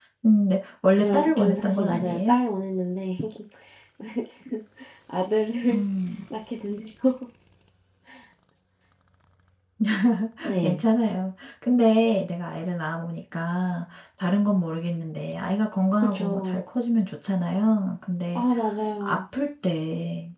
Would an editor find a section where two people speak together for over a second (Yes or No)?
Yes